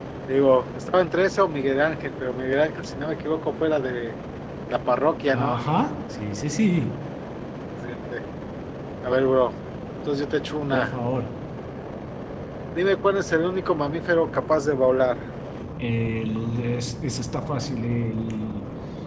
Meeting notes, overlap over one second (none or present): none